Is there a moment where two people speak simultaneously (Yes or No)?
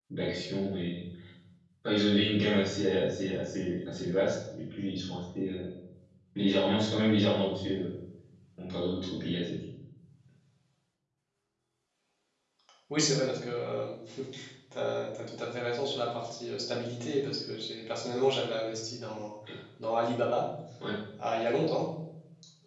No